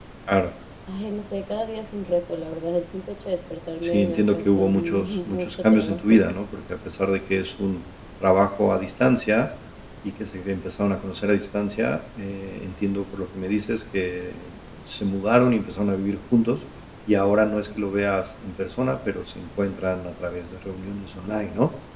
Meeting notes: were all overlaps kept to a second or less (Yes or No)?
No